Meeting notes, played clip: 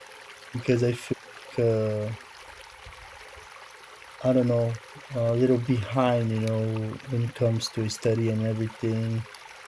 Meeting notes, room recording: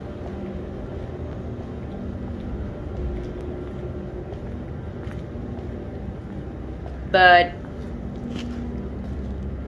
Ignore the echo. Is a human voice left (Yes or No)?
Yes